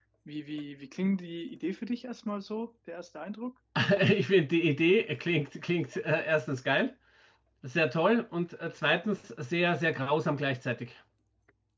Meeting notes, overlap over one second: none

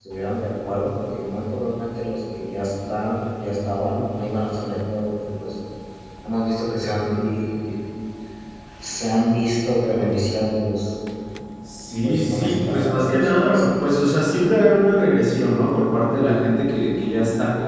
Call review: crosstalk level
present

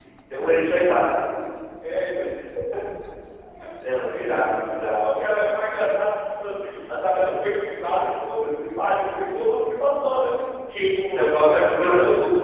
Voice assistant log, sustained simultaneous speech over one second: present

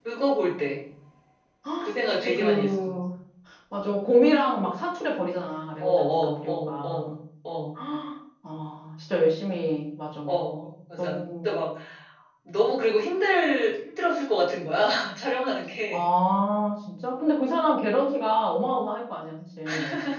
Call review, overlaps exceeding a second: present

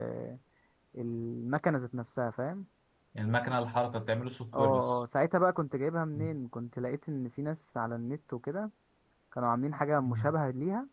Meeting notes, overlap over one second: none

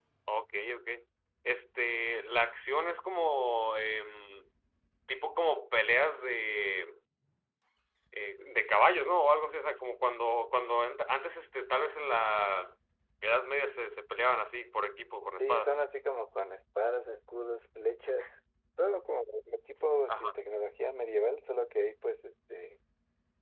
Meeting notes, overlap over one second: none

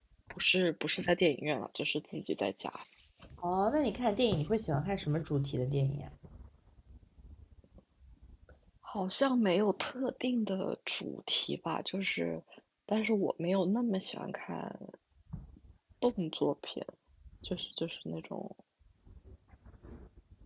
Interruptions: none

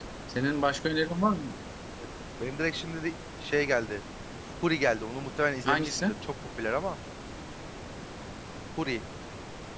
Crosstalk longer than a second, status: none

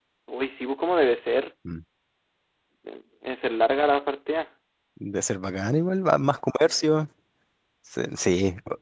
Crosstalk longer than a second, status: none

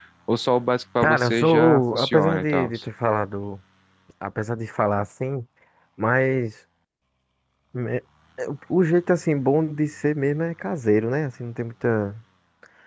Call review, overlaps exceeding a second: present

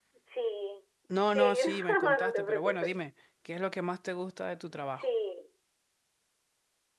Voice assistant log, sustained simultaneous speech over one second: present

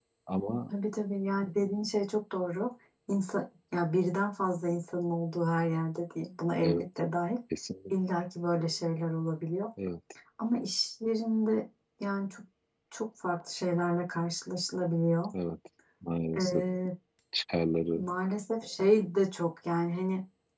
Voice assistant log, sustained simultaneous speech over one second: none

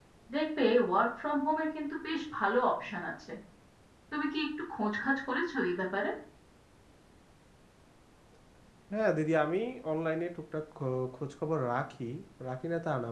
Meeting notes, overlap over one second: none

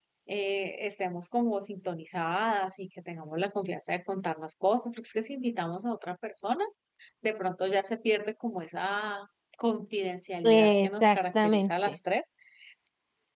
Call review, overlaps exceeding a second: present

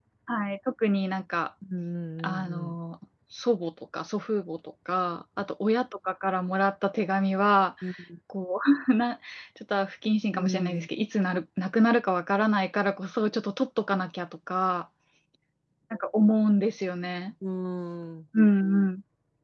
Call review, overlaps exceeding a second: none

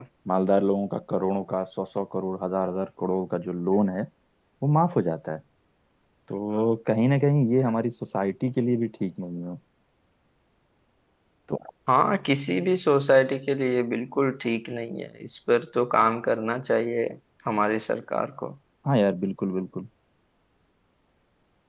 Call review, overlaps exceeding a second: none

